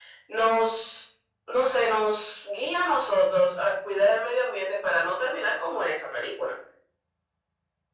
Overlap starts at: none

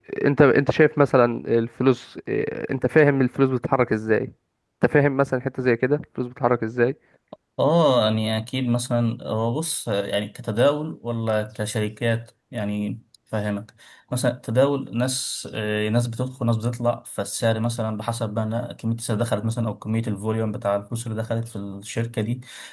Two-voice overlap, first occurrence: none

